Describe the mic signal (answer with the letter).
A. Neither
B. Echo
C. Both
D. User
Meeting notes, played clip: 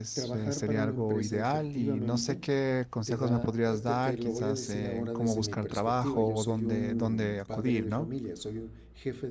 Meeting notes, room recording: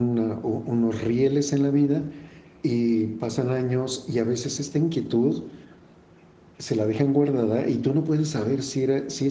D